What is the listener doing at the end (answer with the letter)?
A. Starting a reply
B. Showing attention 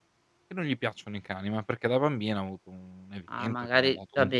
A